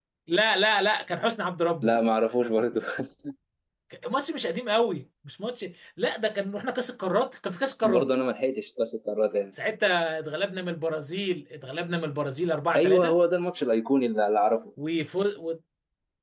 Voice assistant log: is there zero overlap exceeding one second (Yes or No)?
Yes